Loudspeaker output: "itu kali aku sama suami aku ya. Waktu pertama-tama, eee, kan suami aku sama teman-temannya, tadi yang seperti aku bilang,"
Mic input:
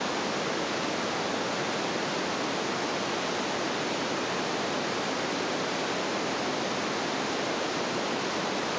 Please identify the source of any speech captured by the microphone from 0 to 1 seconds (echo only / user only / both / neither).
neither